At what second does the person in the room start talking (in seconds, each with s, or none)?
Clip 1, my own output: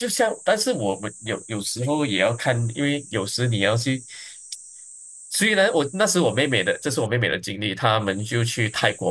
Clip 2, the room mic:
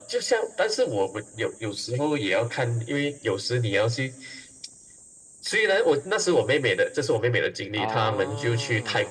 7.7 s